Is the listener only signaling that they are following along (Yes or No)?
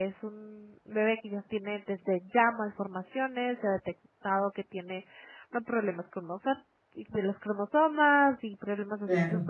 Yes